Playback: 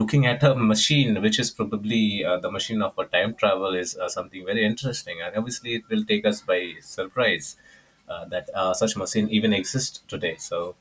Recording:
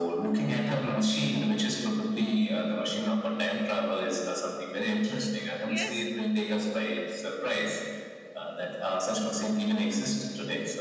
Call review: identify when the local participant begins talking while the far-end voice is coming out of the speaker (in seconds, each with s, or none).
5.6 s